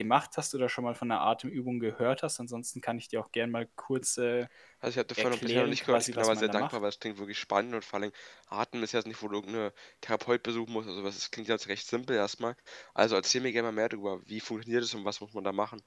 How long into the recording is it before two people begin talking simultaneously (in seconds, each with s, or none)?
5.2 s